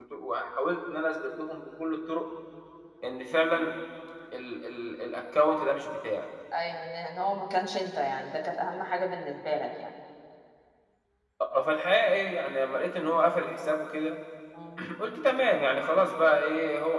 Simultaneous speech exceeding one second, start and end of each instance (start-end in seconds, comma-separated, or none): none